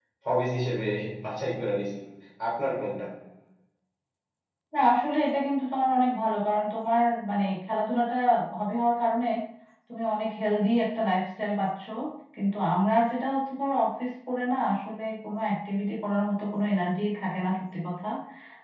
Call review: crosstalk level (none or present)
none